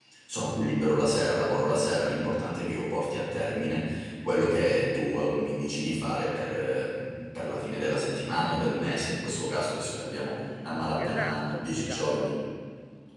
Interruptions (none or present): present